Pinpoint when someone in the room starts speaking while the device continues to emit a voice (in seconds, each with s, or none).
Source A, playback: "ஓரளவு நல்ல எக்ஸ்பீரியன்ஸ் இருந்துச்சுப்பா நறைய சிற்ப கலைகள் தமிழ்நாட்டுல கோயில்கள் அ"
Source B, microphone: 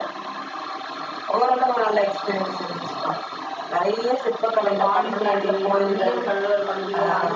4.5 s